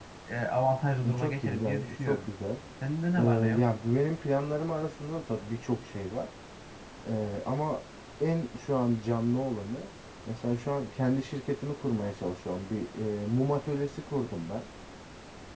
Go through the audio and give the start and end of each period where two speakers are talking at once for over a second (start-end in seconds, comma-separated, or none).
1.0-2.3